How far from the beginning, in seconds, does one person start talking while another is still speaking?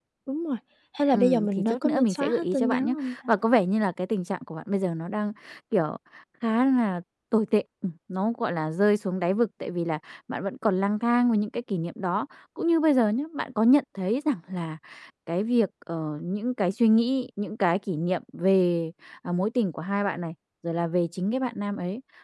1.1 s

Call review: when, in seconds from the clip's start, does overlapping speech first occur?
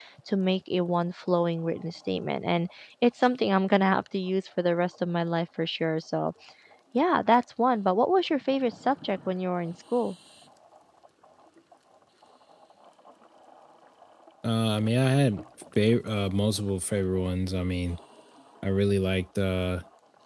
none

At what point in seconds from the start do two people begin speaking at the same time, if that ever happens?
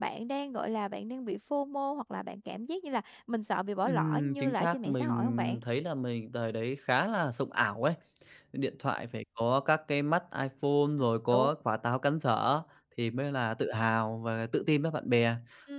3.8 s

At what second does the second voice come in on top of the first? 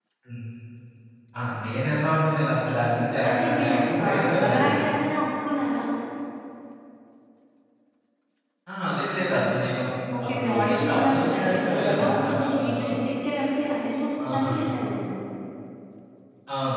3.3 s

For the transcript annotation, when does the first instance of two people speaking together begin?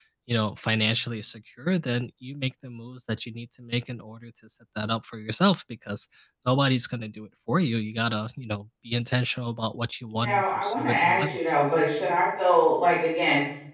10.2 s

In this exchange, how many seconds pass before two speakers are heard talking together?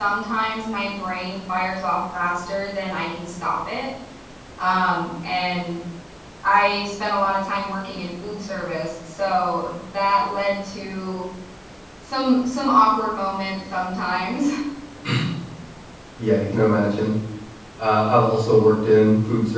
none

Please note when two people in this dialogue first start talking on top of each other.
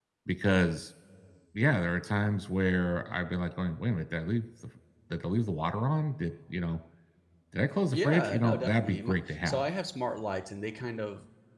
7.9 s

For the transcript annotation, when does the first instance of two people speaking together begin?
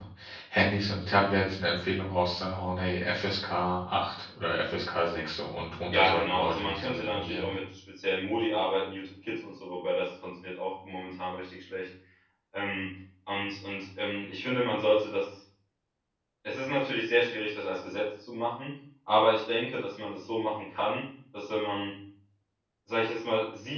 5.9 s

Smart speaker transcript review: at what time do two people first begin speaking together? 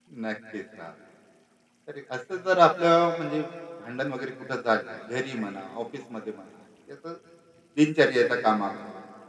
none

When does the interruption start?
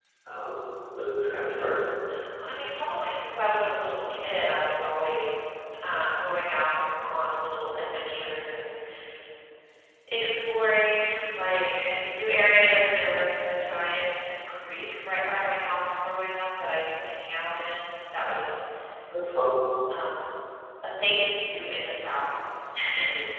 none

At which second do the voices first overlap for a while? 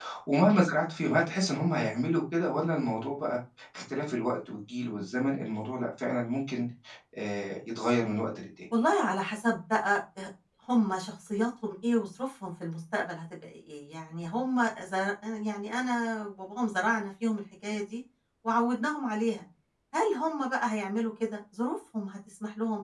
none

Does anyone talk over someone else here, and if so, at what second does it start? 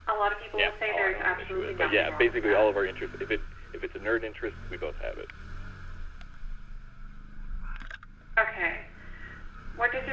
0.6 s

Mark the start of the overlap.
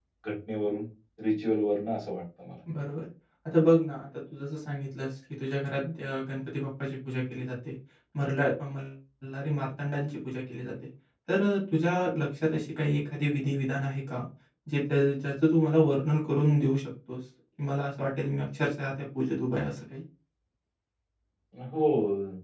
none

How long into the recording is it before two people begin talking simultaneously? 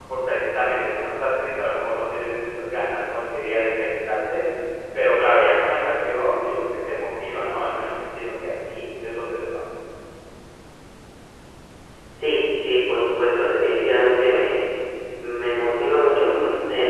none

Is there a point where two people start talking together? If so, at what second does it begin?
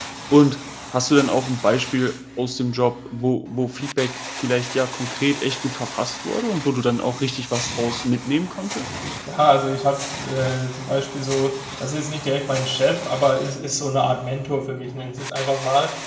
none

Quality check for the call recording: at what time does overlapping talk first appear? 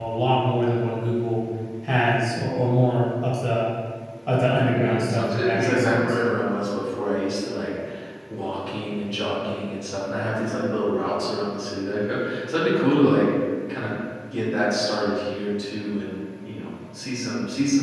4.7 s

